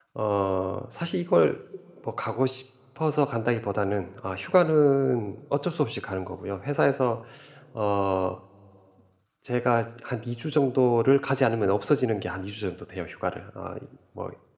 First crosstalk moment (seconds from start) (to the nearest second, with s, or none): none